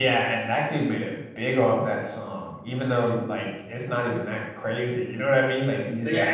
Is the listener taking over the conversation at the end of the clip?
Yes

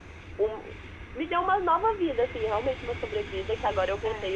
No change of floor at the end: Yes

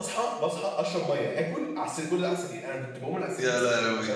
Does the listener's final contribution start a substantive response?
No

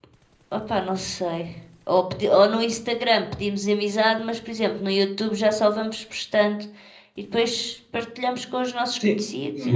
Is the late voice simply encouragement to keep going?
No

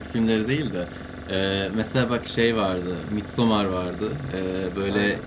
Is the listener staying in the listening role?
Yes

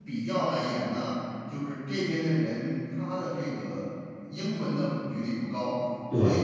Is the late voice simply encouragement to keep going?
Yes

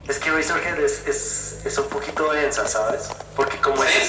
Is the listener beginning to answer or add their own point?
No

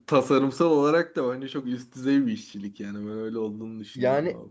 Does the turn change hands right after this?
Yes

